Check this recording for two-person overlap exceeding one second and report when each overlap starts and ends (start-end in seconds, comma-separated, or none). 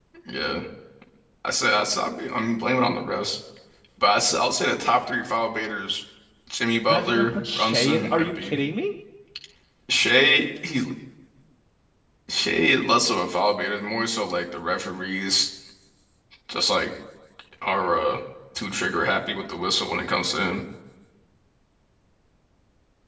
6.9-8.6